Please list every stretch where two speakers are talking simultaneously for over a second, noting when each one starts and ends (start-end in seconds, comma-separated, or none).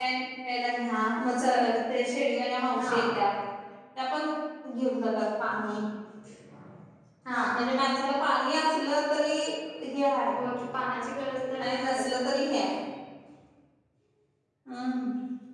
none